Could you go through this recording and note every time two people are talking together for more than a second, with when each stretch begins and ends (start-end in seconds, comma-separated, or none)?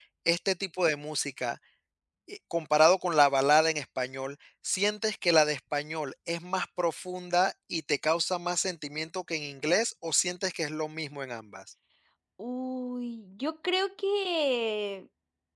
none